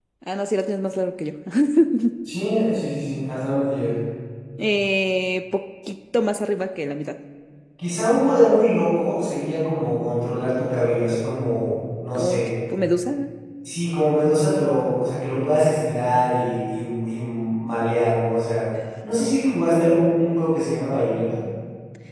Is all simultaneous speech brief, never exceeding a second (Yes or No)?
Yes